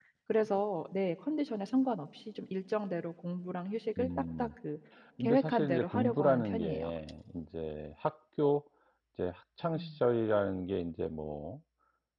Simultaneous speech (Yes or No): Yes